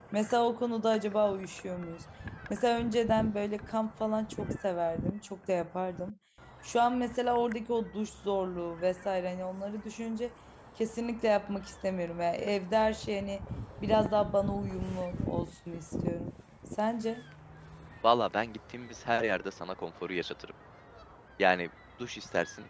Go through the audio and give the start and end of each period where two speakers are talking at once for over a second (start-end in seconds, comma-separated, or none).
none